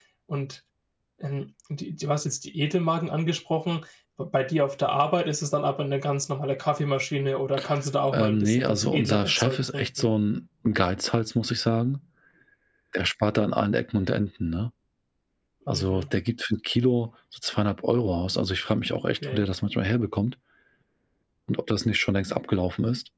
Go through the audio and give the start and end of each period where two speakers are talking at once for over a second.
8.1-10.1

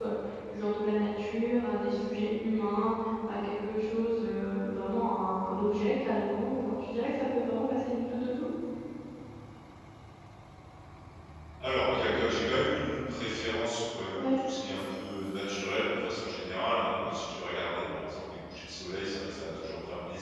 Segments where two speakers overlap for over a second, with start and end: none

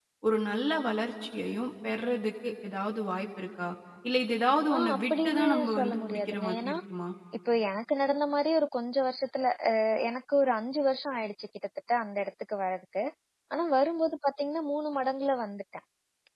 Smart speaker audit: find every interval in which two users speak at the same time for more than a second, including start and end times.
4.7-6.7

